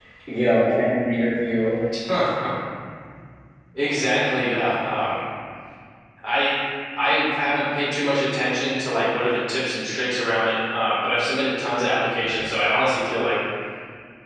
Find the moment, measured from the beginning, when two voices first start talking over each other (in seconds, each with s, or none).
none